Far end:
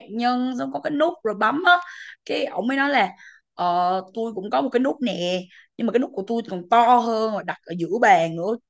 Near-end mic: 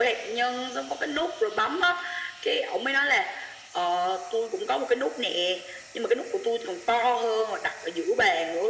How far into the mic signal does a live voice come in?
none

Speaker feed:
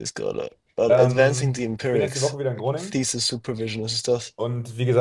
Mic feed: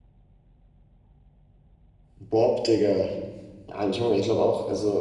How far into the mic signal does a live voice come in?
2 s

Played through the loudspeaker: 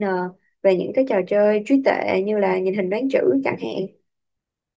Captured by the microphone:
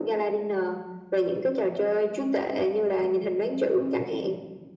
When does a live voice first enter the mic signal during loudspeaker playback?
none

